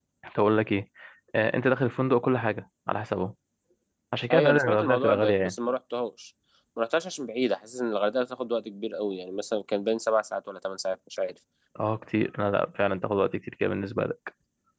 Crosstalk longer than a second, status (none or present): present